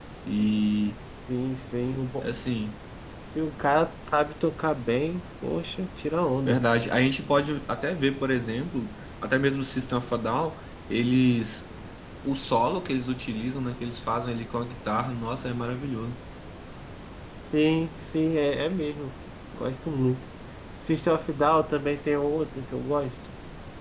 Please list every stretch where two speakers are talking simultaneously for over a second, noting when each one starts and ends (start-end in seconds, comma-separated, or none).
none